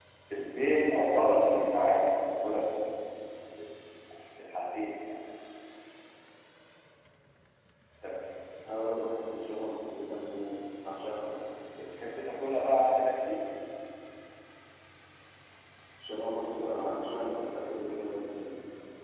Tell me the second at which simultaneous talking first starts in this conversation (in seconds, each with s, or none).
none